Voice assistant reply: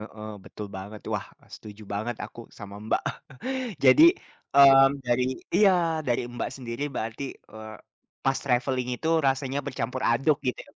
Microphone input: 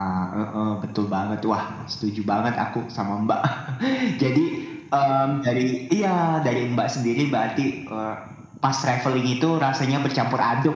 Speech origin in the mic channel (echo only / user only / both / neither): echo only